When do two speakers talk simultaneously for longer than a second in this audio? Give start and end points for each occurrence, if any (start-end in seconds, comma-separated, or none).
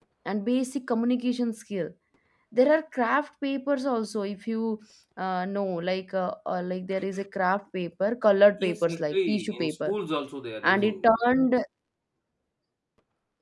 8.6-9.9